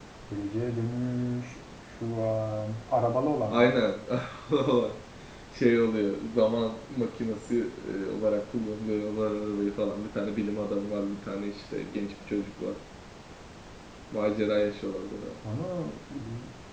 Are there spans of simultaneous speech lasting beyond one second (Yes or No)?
No